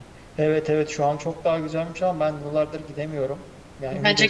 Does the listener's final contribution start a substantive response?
No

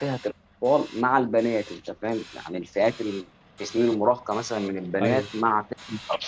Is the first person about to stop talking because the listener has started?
No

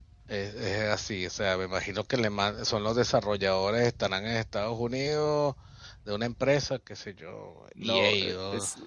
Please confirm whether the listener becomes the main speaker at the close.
Yes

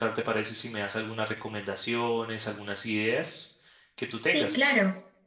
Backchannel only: No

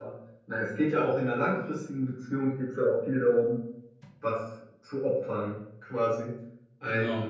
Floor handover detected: No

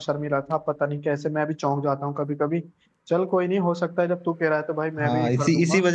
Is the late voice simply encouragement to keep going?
No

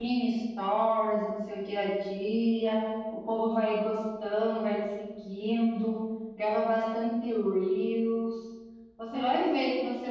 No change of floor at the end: Yes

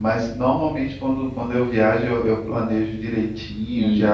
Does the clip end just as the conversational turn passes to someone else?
No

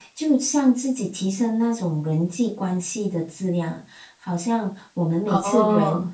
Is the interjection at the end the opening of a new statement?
No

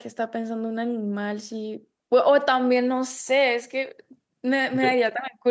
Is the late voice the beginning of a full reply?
No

